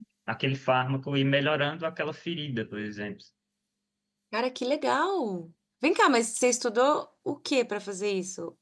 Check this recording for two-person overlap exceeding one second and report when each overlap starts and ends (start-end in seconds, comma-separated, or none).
none